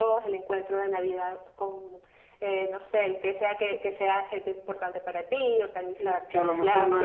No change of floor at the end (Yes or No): No